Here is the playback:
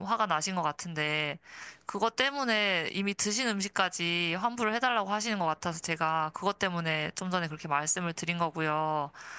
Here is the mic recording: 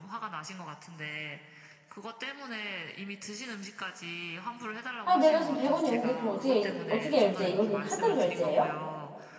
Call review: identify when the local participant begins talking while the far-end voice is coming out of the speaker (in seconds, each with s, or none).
5.0 s